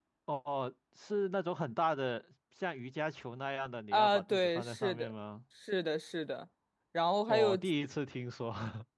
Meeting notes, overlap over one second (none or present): present